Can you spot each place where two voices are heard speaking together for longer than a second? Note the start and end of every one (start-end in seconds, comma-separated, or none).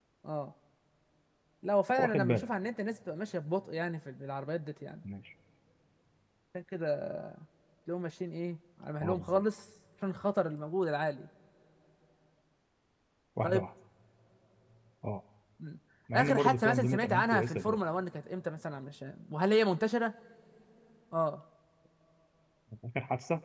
16.1-17.8